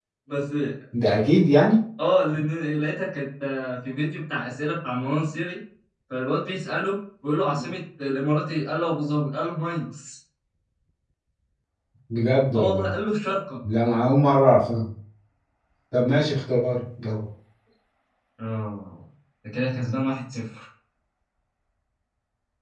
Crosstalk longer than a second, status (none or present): none